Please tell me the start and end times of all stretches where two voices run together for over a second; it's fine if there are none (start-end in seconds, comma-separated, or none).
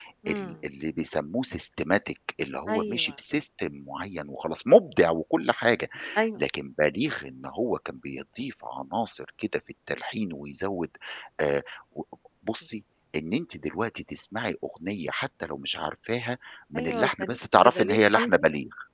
16.8-18.4